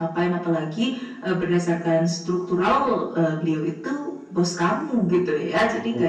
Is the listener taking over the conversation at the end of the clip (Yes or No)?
No